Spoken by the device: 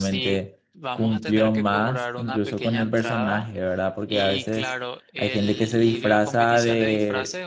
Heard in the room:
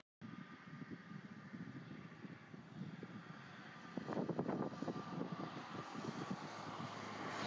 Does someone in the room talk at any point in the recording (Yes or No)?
No